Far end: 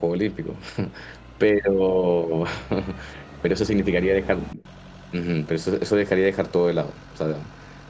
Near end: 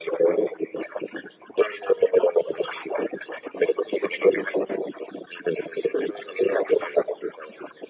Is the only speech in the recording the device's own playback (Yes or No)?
Yes